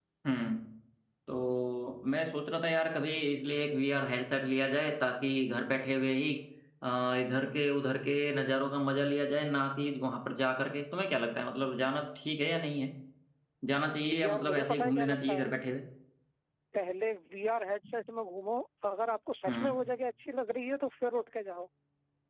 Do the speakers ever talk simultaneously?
Yes, from 14.1 s

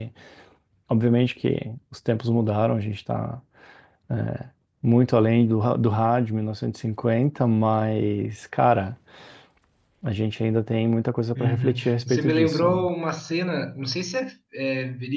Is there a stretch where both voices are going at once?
Yes, from 11.3 s

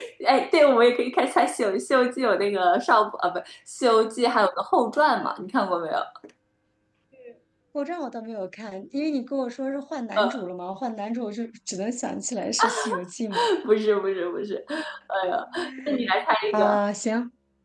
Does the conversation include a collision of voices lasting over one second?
No

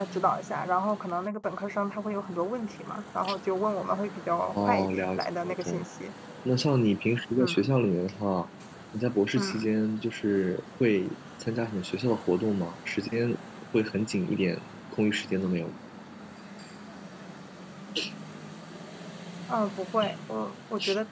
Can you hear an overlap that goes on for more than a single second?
Yes, from 4.6 s

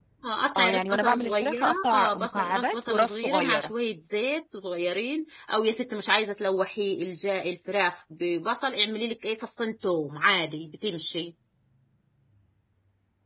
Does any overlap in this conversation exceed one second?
Yes, from 0.6 s

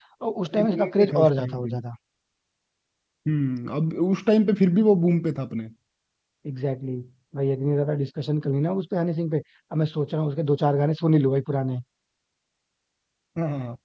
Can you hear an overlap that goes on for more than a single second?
Yes, from 0.5 s

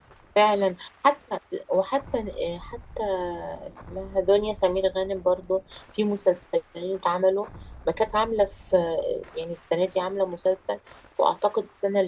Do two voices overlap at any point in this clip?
No

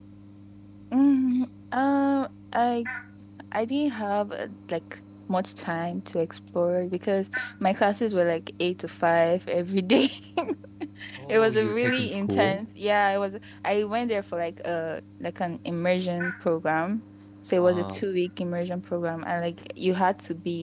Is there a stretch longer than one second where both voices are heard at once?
Yes, from 11.3 s

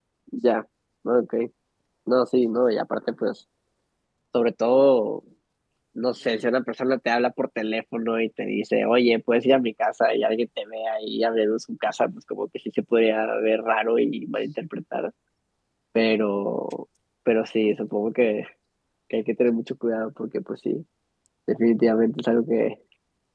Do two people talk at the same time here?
No

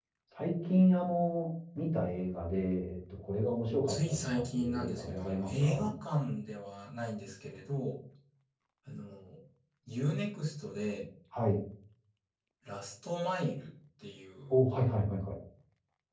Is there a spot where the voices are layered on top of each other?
Yes, from 3.9 s

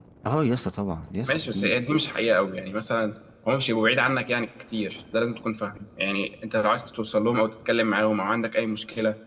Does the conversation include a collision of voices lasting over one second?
No

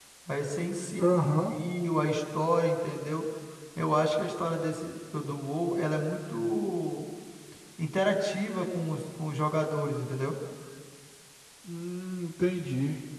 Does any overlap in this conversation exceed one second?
No

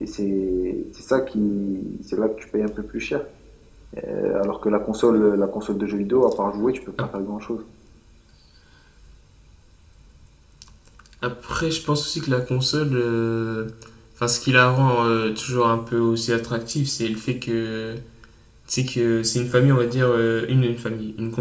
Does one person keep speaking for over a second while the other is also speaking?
No

